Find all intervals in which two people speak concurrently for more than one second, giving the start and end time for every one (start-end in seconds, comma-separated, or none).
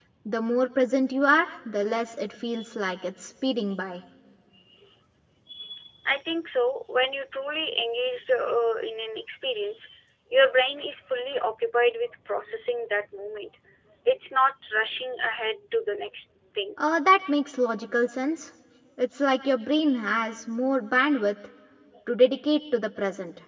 none